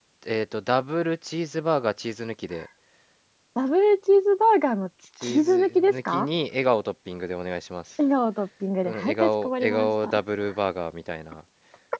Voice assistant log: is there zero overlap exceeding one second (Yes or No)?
No